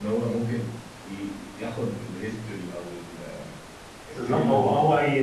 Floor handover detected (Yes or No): Yes